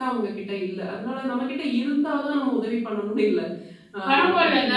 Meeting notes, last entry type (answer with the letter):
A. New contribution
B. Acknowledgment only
A